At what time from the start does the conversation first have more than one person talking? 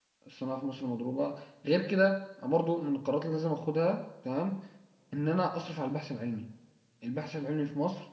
none

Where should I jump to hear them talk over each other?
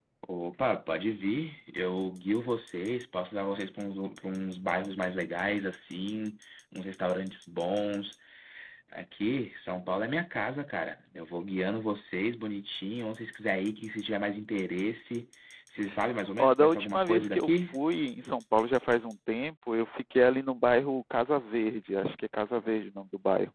16 s

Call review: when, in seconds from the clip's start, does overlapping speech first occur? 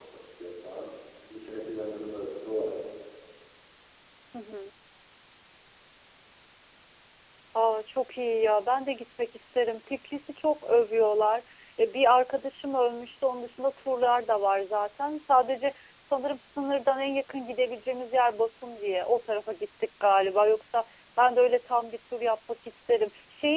none

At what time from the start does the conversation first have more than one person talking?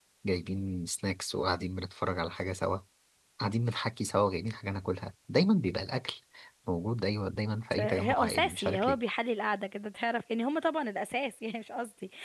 8 s

